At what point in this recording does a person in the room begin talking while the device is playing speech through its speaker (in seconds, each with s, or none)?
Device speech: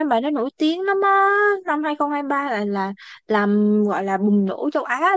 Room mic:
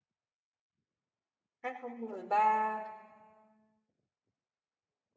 1.6 s